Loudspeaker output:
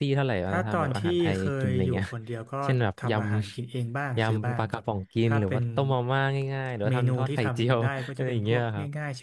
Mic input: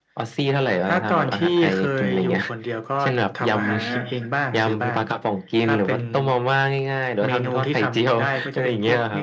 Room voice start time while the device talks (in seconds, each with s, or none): 3.6 s